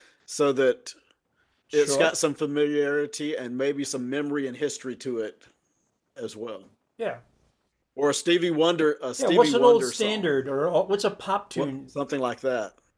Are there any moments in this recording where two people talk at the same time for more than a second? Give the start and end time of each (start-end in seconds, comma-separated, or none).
9.2-10.4